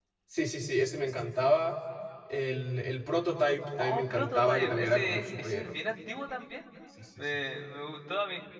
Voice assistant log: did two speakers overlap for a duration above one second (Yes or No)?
Yes